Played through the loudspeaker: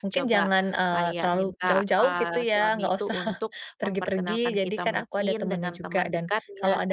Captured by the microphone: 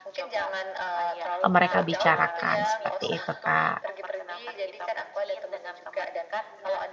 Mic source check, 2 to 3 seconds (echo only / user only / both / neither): both